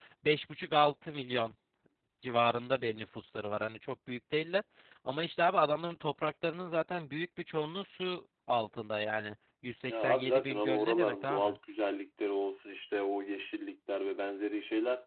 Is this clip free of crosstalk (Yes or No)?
No